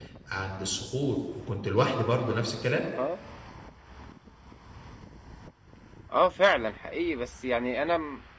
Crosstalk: none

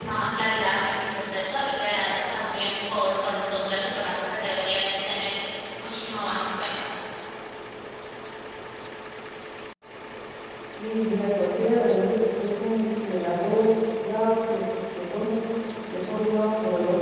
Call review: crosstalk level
none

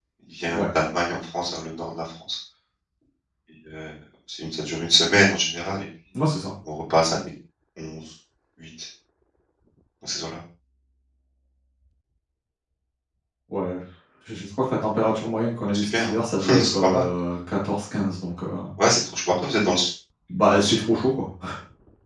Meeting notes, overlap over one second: present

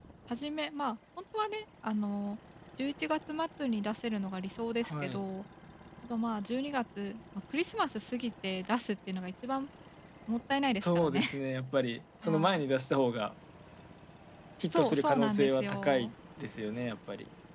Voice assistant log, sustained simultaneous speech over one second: present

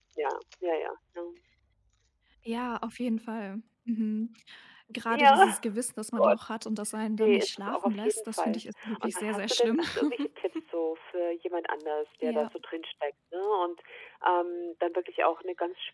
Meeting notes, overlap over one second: present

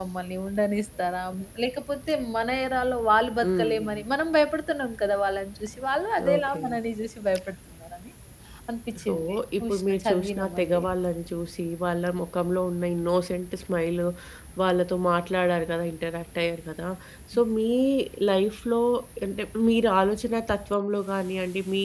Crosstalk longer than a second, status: present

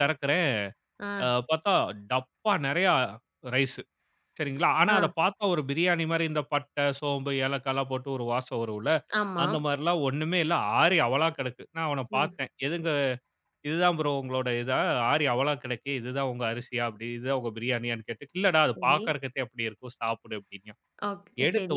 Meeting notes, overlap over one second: none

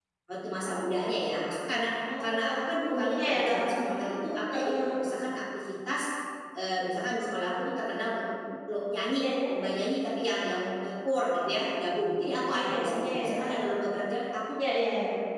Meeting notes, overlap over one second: present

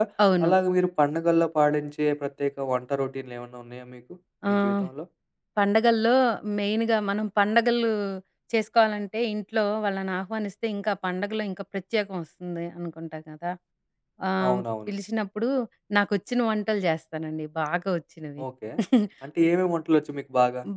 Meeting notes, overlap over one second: none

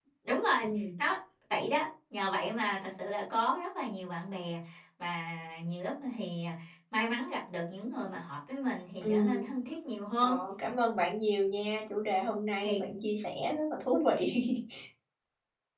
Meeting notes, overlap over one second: none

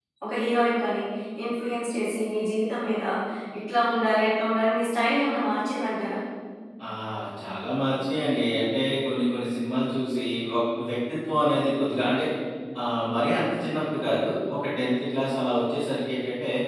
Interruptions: none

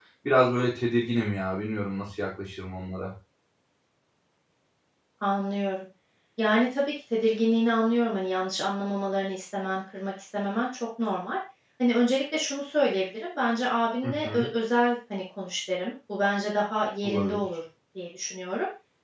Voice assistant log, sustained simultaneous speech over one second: none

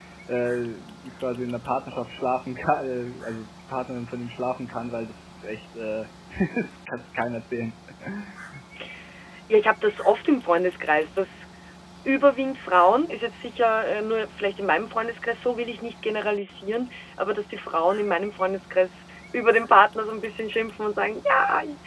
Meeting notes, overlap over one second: none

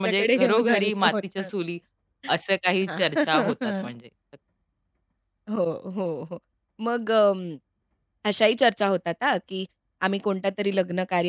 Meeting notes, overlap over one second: present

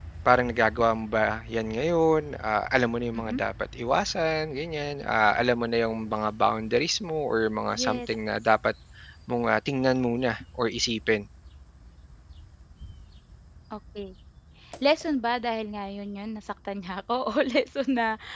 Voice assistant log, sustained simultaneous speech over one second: none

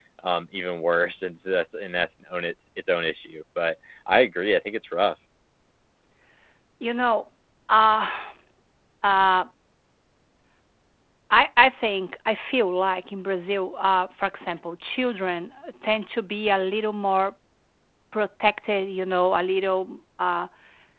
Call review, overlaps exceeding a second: none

